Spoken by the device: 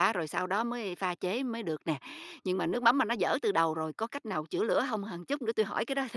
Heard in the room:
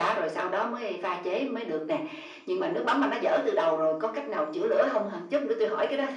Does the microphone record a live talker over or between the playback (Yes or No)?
No